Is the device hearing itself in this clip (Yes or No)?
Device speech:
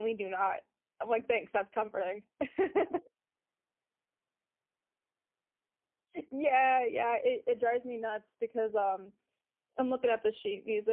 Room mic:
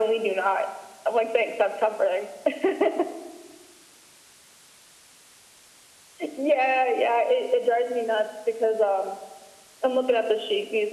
Yes